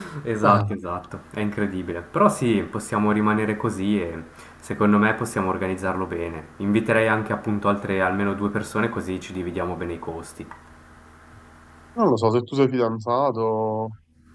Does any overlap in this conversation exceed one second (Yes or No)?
No